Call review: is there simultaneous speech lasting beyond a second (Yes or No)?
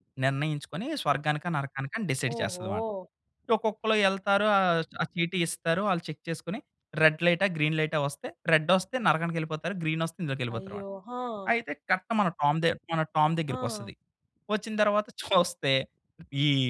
No